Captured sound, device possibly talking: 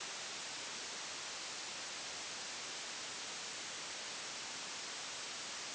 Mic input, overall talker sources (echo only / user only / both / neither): neither